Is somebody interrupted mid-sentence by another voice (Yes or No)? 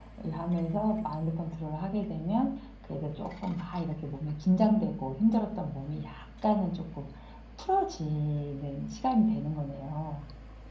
No